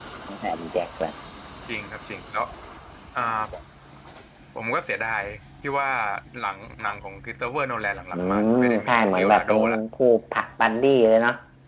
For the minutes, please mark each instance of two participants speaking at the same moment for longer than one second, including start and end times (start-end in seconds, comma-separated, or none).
8.1-9.6